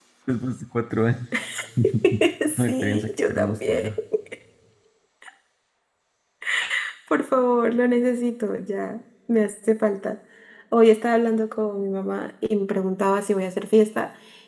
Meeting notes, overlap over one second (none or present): present